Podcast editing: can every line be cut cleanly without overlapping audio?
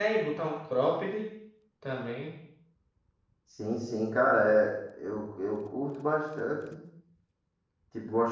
Yes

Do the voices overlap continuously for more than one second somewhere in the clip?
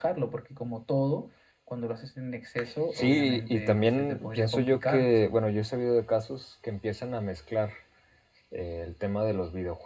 Yes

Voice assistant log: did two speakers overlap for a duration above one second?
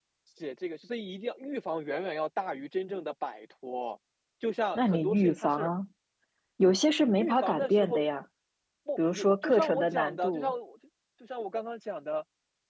Yes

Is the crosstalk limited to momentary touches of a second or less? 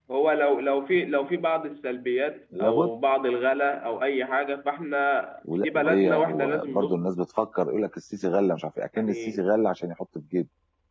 No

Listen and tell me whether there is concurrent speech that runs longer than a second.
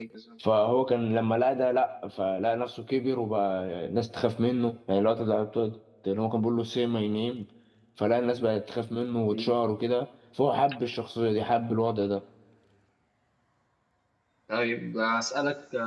No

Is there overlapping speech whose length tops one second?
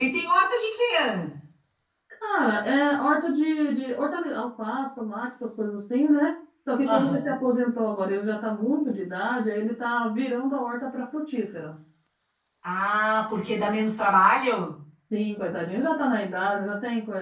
No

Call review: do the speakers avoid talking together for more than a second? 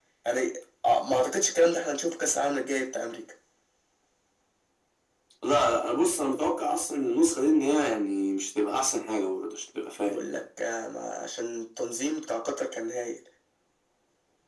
Yes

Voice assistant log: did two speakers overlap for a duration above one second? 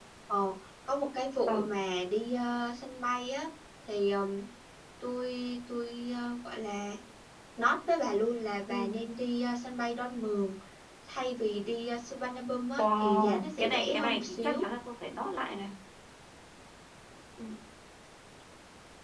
Yes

